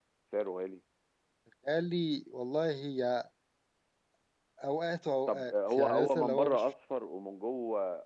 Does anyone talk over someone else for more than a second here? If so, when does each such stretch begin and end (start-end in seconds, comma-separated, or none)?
5.3-6.6